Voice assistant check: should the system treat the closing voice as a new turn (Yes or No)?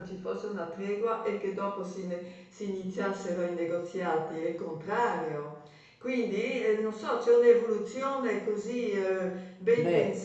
No